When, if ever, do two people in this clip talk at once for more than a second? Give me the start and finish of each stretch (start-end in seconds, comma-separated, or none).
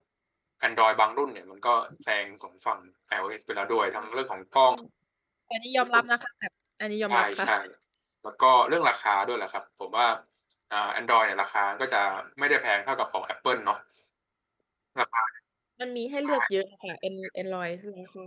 none